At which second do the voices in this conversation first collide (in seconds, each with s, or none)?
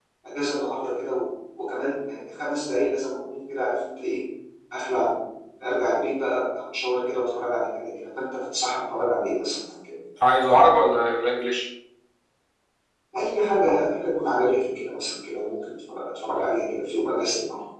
none